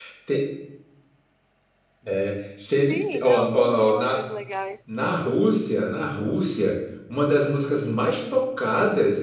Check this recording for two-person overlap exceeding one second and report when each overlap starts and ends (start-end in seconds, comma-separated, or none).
2.9-4.2